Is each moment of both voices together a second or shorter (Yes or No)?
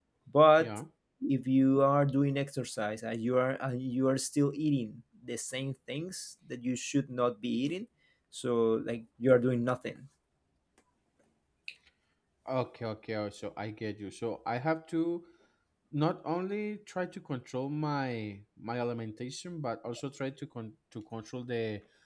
Yes